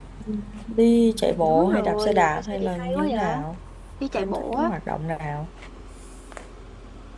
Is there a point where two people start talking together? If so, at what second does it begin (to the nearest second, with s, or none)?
1 s